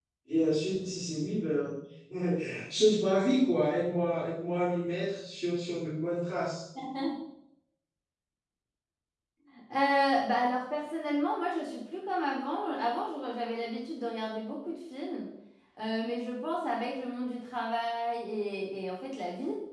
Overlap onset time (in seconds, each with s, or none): none